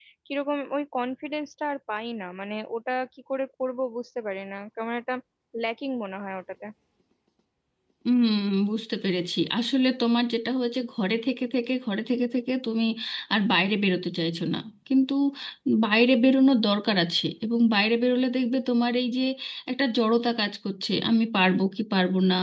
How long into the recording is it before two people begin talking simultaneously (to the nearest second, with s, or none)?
none